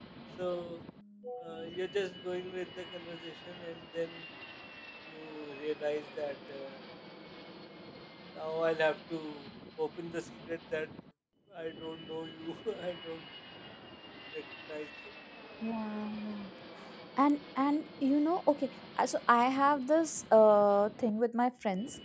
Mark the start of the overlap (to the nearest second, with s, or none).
none